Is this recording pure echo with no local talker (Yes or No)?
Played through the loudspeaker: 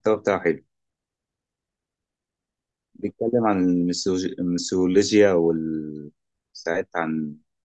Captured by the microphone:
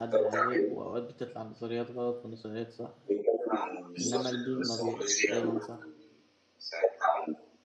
No